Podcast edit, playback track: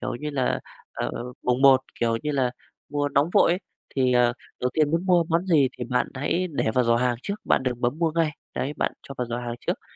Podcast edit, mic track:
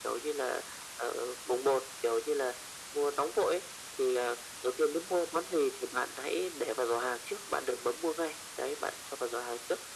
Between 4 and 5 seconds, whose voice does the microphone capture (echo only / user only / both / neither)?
echo only